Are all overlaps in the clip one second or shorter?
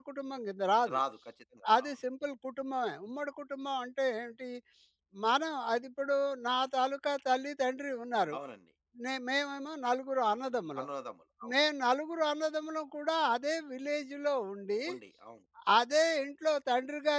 Yes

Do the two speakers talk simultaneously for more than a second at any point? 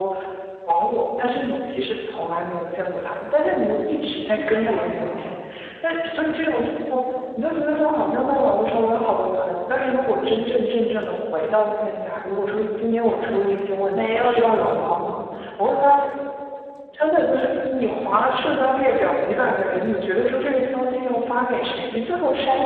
Yes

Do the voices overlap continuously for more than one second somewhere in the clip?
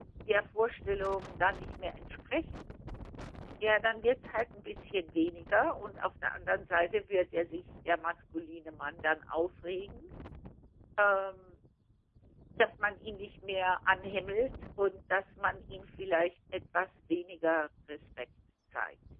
No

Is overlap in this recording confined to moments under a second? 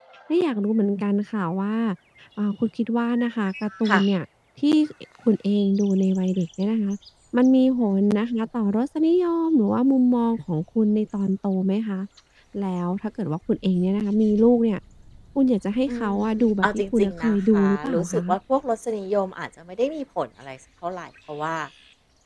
No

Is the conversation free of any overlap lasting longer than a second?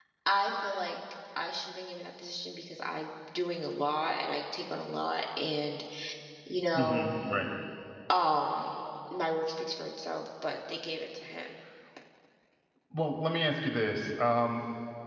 Yes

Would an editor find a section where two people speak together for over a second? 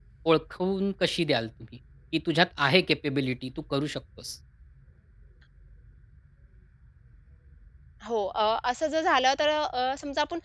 No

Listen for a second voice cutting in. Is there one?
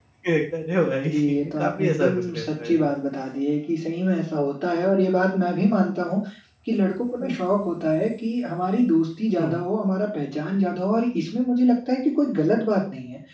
Yes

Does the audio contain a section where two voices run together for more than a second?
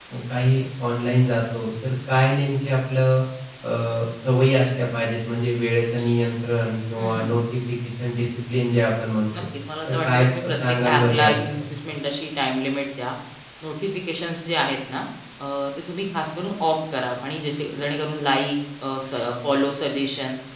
Yes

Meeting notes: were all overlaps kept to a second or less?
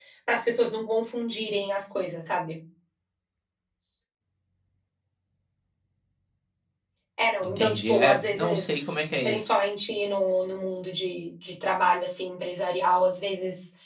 No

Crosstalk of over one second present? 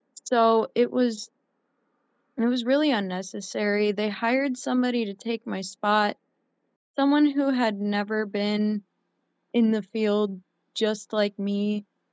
No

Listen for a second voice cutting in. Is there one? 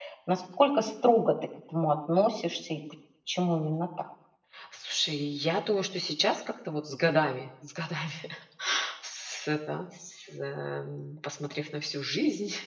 No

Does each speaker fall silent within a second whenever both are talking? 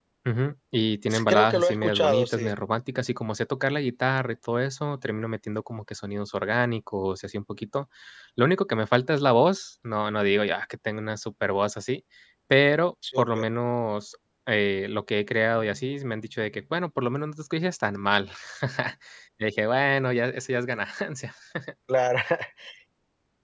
No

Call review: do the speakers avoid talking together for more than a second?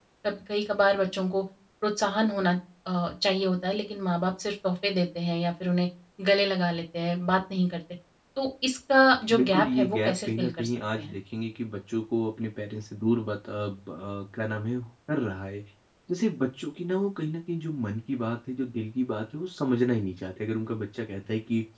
No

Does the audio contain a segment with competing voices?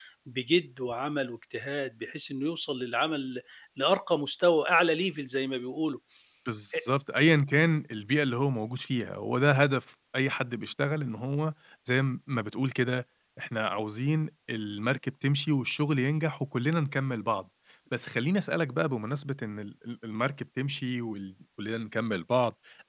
No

